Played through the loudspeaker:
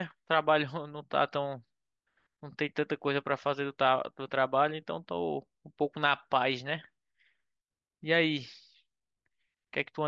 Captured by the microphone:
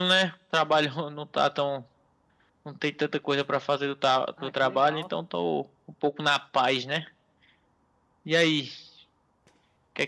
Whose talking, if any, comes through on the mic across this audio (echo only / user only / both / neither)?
both